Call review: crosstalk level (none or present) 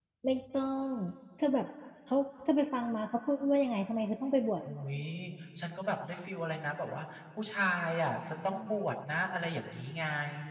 none